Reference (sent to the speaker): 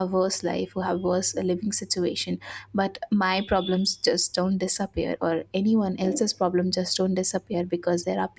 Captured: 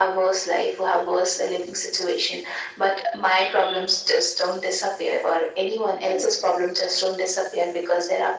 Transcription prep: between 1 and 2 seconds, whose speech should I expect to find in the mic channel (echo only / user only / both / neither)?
echo only